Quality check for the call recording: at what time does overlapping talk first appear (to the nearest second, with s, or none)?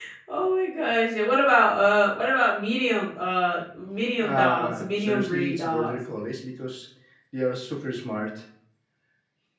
4 s